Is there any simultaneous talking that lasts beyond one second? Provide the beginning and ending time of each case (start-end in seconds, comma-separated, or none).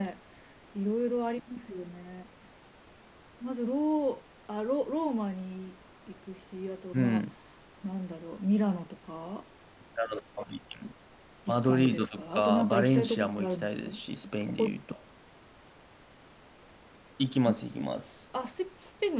11.5-13.9